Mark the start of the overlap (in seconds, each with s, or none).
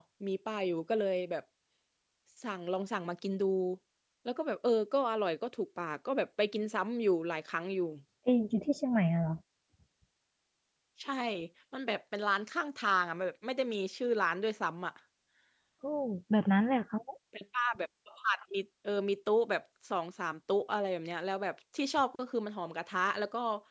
none